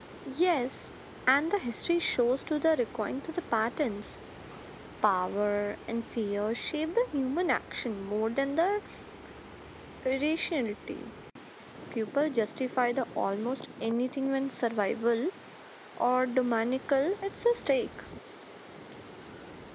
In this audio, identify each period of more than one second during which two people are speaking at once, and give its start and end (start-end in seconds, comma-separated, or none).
none